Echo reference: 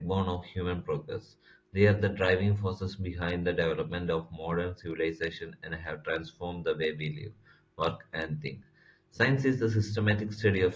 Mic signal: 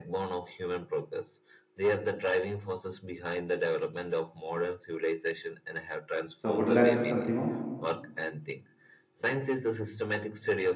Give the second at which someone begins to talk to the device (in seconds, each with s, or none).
6.3 s